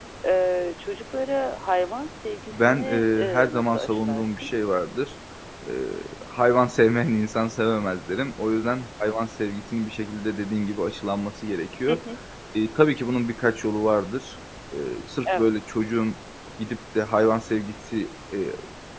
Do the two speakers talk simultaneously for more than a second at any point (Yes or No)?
Yes